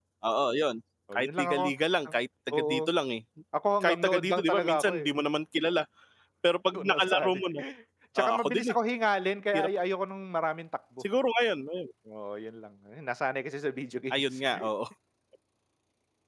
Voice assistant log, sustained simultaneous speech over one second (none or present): present